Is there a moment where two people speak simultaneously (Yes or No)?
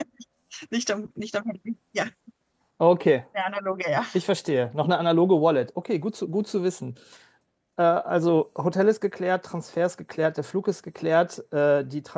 No